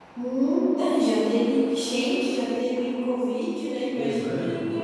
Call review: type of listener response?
taking over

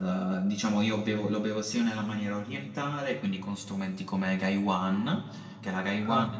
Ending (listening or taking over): listening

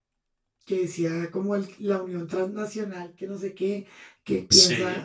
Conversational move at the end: listening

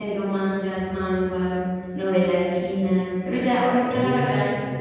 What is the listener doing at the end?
listening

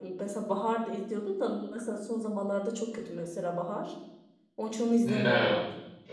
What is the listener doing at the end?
taking over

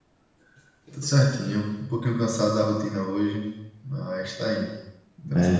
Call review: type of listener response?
taking over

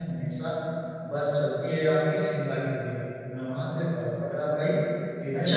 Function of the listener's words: taking over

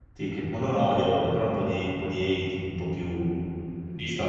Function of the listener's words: taking over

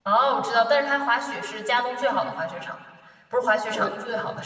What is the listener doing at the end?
listening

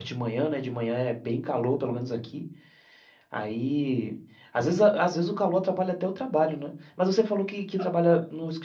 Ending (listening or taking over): listening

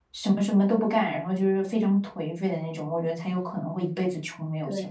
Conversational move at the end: listening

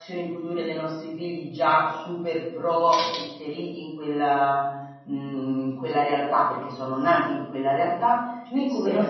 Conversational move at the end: listening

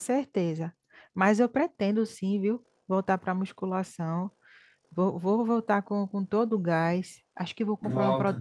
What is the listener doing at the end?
listening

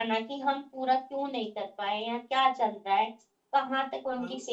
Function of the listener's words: listening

